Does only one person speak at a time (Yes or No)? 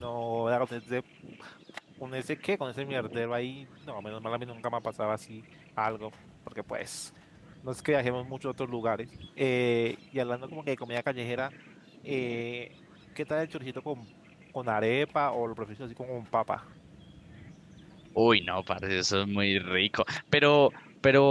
Yes